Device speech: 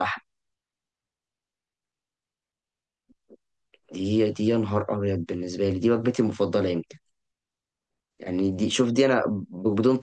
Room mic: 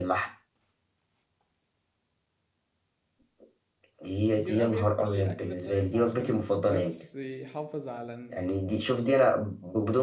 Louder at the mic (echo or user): echo